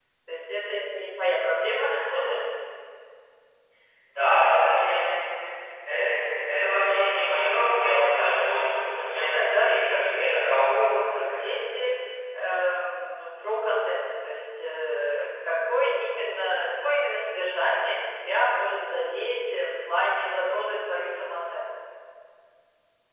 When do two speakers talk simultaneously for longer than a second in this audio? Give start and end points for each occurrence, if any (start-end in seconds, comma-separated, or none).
8.2-11.3